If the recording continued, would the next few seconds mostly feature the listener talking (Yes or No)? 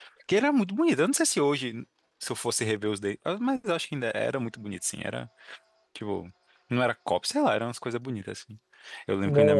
No